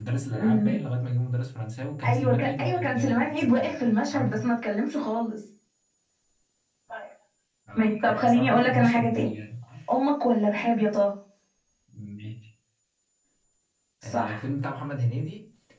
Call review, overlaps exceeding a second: present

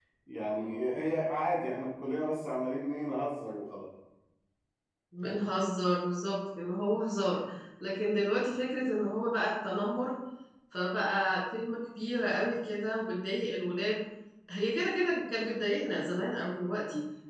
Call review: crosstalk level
none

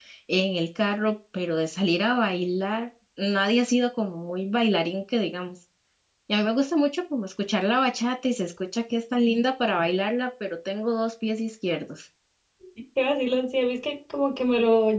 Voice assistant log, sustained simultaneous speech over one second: none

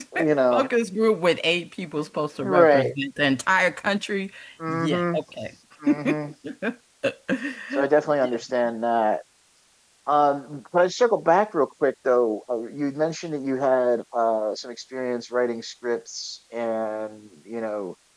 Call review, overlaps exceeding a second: none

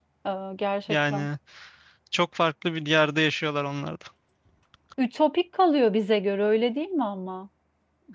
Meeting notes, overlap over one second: none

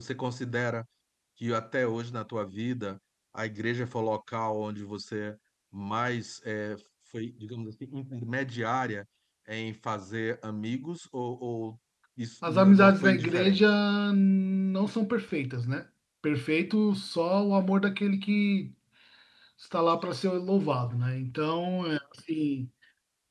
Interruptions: present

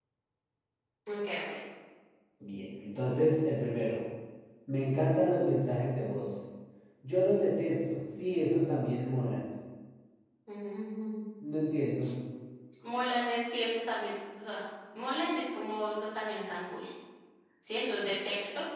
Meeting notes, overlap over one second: none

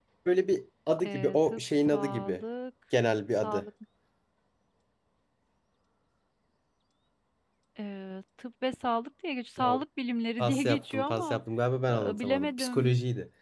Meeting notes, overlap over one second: present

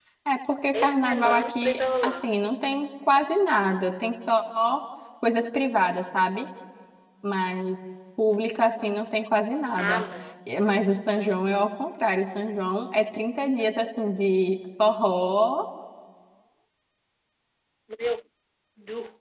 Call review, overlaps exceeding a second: present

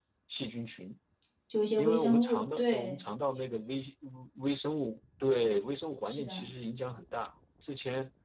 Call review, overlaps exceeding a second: present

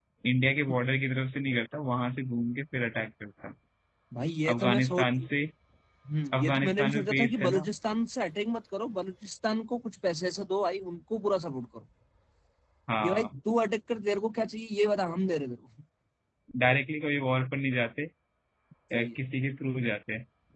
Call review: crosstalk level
present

